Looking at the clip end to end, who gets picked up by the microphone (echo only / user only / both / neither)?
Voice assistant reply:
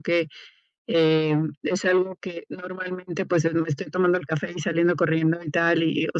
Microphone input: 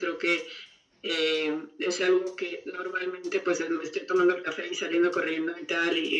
echo only